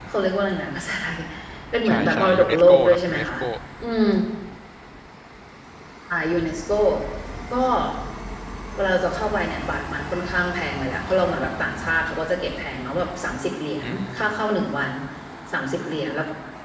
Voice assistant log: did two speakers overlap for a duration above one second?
Yes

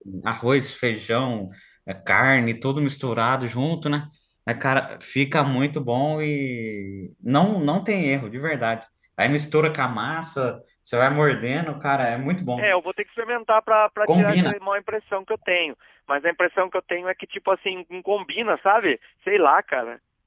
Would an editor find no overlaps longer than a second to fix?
Yes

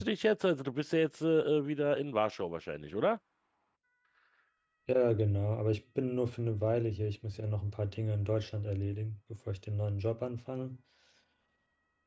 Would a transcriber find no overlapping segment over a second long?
Yes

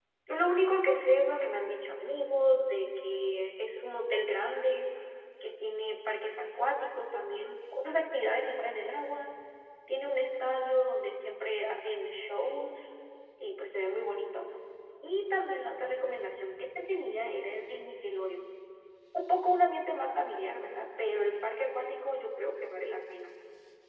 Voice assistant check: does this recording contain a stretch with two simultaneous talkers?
No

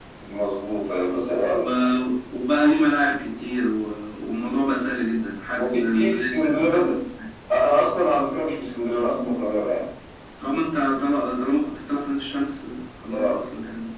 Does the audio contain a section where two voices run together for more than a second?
Yes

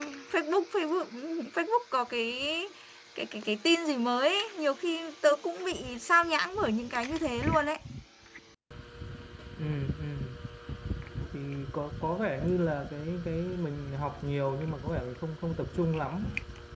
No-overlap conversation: Yes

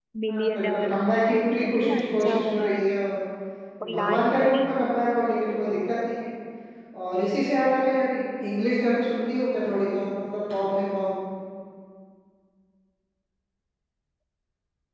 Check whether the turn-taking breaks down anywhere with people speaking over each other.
Yes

